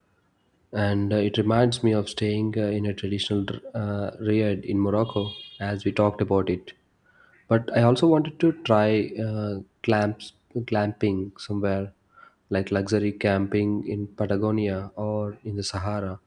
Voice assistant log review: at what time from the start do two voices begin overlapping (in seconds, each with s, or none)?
none